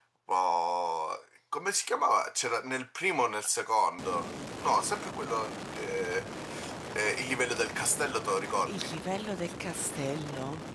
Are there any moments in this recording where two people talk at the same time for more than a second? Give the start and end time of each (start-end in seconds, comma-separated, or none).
none